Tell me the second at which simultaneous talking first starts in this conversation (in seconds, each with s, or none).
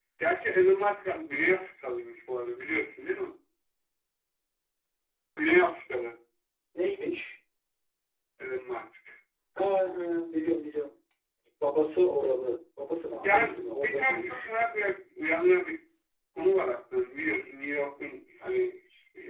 13.2 s